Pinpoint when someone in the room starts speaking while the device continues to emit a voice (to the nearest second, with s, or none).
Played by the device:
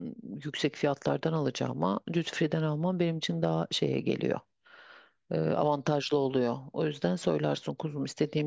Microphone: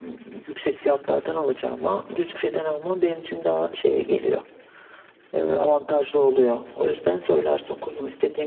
none